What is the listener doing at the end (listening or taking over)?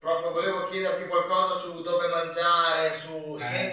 listening